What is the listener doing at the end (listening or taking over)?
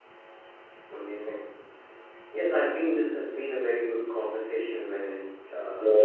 taking over